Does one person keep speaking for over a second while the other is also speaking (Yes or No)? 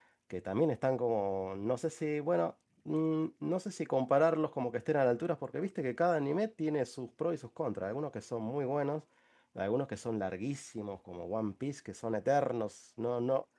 No